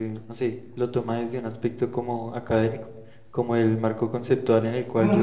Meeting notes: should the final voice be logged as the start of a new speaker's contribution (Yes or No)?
Yes